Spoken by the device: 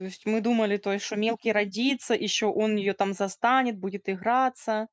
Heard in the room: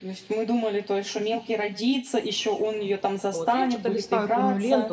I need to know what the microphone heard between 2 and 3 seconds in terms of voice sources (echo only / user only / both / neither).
echo only